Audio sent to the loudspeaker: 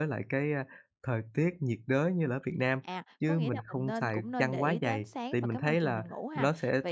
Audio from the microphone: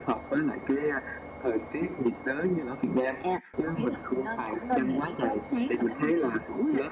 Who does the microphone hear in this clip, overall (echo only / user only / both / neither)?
echo only